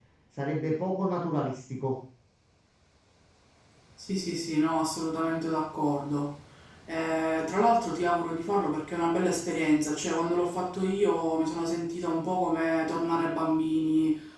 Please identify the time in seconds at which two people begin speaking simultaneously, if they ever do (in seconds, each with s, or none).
none